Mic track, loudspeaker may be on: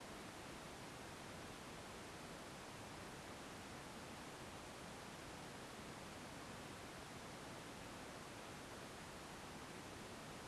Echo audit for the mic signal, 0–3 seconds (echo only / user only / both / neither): neither